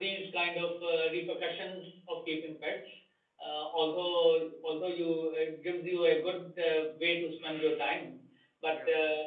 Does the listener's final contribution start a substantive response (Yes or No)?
No